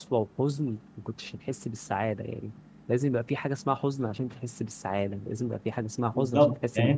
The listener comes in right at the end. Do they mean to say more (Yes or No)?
Yes